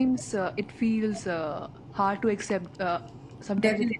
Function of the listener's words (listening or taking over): taking over